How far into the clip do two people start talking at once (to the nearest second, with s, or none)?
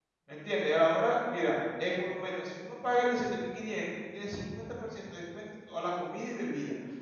none